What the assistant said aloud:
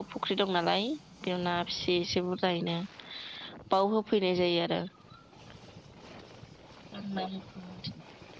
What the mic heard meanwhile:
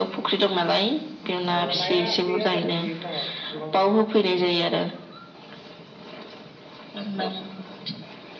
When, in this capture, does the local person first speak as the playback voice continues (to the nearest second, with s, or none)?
2 s